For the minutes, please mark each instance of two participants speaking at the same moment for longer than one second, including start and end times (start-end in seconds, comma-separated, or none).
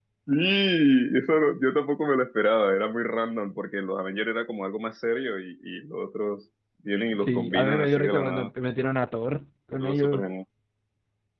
7.2-8.5